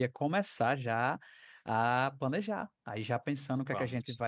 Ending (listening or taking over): listening